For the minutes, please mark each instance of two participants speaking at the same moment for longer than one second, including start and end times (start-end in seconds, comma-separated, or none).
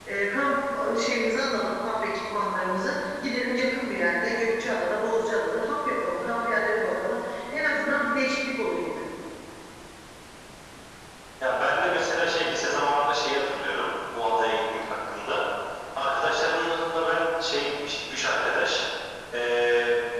none